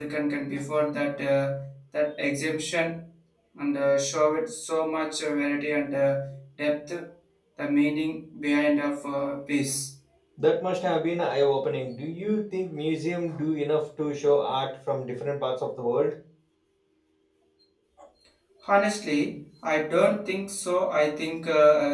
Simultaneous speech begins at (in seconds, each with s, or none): none